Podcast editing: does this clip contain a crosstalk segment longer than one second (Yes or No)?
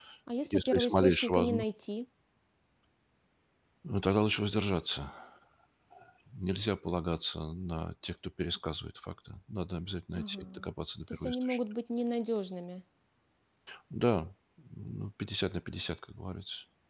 Yes